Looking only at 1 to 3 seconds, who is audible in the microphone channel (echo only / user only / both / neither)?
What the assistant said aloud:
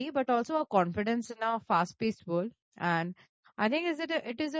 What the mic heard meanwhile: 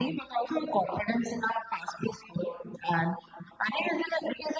echo only